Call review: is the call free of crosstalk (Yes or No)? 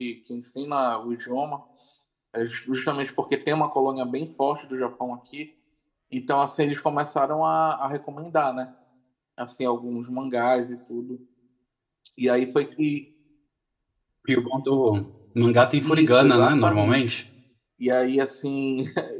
No